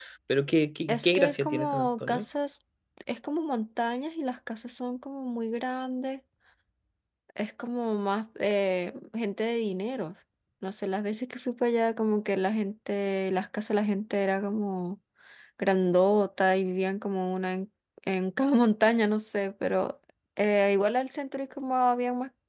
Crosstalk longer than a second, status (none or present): present